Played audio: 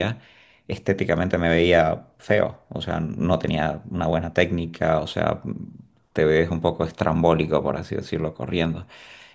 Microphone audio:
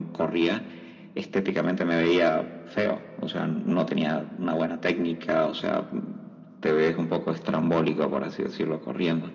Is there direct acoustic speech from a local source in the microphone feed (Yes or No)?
No